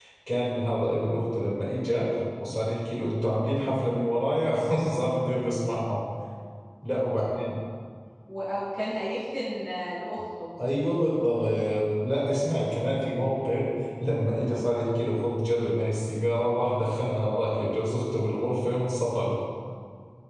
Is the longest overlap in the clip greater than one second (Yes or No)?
No